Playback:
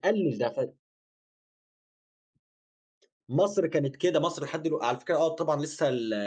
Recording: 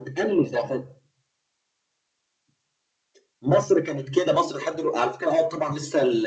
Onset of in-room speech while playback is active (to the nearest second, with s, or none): none